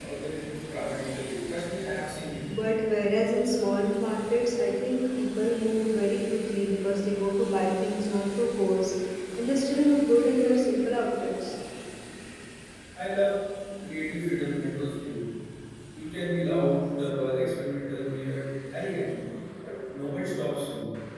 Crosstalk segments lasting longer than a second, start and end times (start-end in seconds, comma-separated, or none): none